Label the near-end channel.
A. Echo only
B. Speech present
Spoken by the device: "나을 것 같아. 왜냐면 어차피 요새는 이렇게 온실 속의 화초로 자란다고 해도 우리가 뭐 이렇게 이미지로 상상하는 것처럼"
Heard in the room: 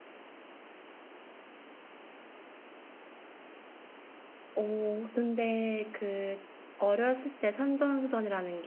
B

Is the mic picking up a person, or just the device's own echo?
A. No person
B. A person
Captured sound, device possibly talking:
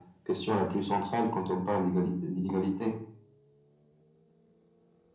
A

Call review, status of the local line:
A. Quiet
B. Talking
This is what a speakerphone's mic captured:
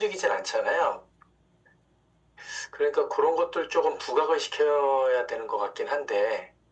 A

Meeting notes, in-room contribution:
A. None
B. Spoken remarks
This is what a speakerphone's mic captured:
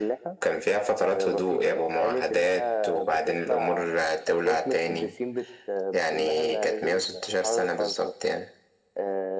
A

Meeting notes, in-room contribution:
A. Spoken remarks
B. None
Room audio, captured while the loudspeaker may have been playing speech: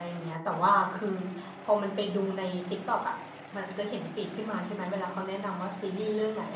A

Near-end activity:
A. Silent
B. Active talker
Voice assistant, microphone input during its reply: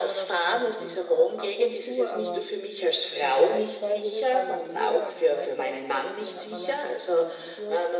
B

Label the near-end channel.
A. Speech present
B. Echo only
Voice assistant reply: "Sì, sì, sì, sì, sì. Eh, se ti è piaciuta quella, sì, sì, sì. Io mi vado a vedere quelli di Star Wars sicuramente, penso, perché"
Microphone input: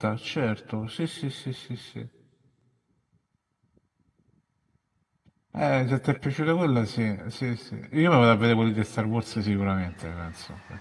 B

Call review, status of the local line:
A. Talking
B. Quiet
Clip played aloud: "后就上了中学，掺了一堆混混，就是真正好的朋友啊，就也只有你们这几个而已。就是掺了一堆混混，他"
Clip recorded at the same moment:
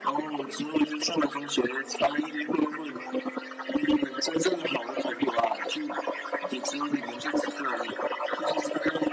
B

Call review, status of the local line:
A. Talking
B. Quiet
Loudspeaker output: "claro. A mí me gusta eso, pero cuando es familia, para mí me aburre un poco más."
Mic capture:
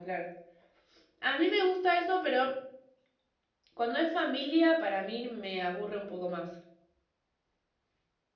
B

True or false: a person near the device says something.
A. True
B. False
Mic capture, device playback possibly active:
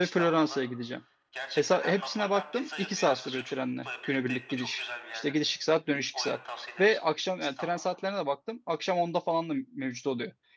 A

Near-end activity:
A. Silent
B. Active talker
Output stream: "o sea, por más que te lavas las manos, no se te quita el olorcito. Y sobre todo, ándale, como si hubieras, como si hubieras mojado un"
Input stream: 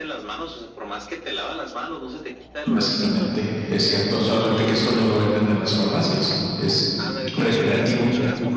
B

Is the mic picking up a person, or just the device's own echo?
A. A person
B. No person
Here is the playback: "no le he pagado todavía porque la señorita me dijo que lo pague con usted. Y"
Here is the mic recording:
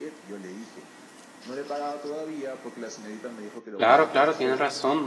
A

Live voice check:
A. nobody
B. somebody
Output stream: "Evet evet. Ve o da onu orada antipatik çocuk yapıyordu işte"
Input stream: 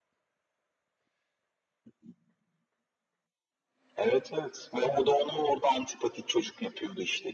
A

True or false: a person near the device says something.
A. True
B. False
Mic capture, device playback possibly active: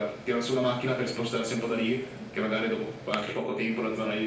B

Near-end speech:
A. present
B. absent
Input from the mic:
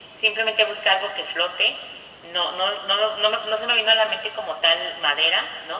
B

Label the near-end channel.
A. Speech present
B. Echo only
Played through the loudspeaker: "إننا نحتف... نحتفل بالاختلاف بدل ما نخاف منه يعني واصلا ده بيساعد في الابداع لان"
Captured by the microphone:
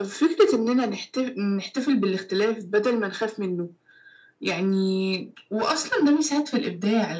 B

